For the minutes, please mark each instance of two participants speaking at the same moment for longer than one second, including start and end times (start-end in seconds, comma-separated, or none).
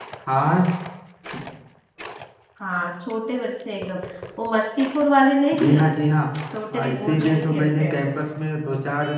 6.7-8.0